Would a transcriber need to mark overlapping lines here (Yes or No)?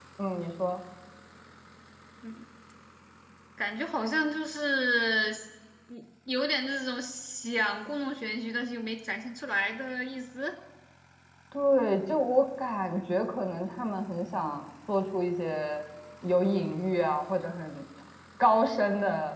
No